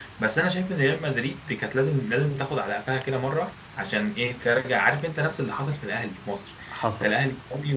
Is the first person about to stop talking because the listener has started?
No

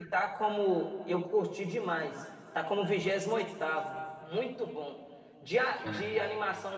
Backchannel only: Yes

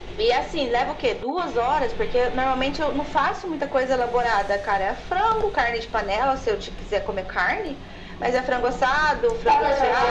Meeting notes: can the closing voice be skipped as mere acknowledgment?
No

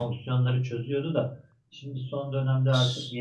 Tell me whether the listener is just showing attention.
Yes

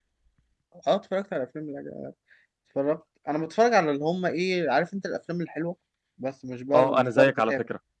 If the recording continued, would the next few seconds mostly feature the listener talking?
Yes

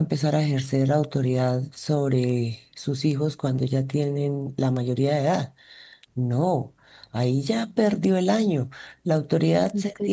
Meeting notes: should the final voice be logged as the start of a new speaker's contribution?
No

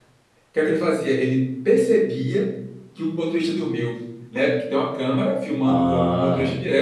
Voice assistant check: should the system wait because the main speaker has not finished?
Yes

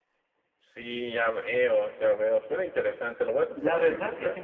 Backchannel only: No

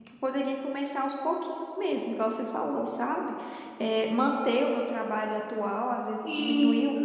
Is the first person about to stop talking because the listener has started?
No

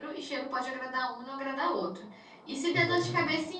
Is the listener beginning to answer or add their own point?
No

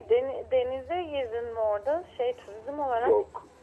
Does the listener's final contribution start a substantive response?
Yes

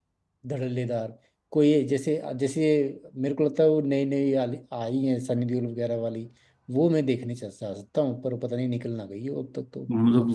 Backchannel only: No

